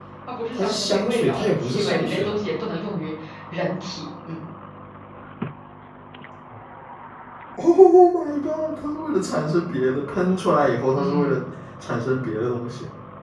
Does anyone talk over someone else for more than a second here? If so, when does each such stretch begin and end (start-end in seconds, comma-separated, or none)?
0.6-2.4